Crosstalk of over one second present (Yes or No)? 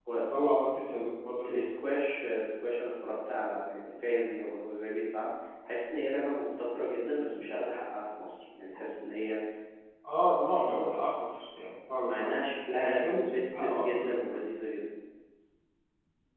Yes